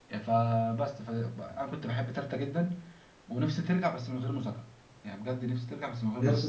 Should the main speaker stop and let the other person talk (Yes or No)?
Yes